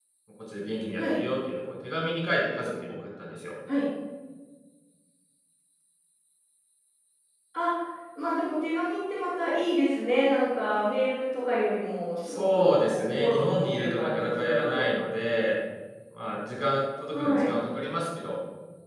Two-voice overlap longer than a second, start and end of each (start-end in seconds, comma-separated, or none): 12.3-14.9